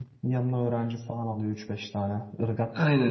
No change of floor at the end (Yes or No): No